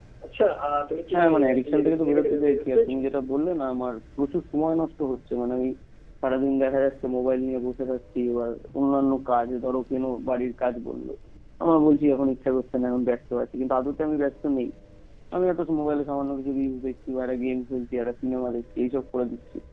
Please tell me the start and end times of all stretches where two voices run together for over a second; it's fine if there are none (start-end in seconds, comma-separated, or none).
1.1-3.0